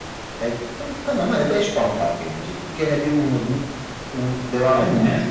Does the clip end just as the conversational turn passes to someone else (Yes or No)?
Yes